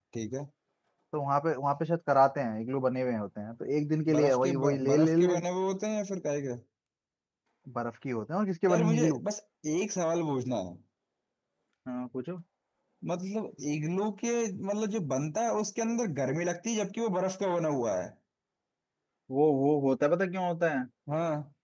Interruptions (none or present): present